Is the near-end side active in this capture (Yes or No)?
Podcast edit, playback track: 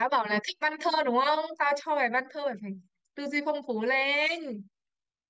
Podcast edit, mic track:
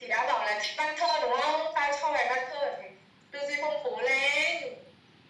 No